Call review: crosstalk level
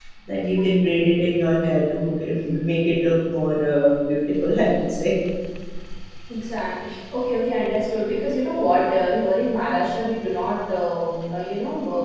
none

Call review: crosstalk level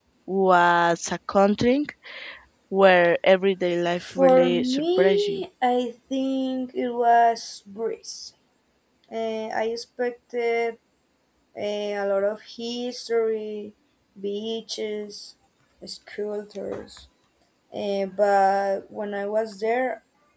present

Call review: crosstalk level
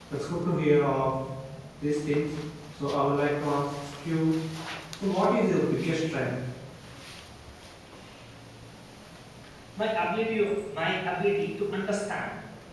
none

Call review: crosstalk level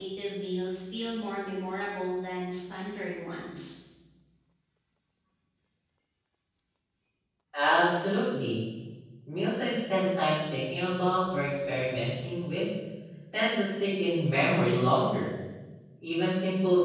none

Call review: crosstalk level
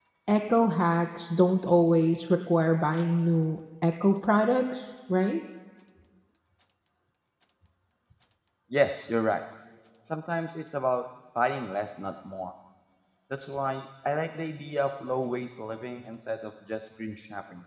none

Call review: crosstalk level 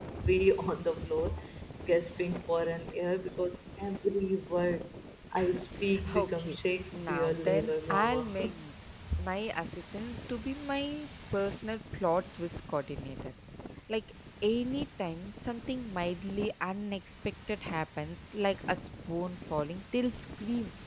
present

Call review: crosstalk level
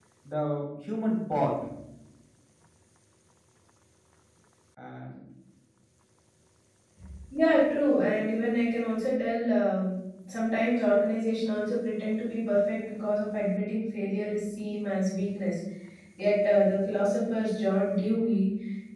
none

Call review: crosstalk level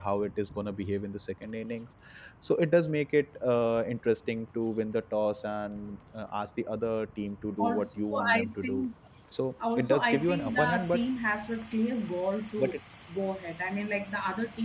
present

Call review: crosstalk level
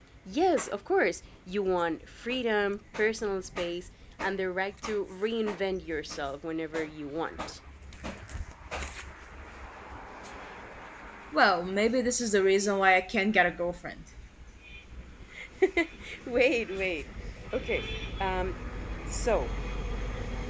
none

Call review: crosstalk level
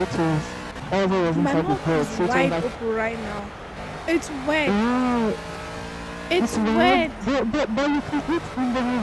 present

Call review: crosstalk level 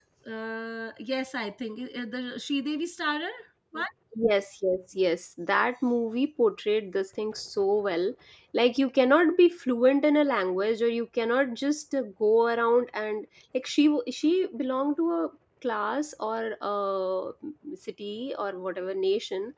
none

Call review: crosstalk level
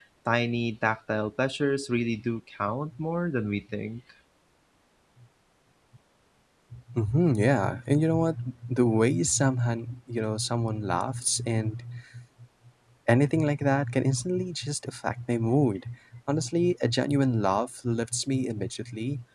none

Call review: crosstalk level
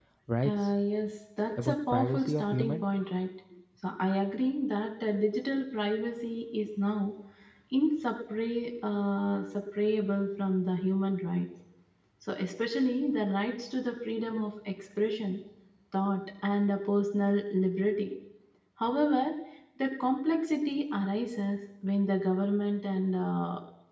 present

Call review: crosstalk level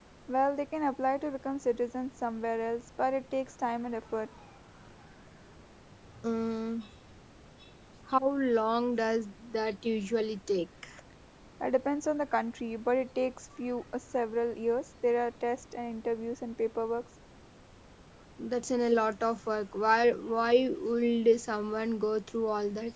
none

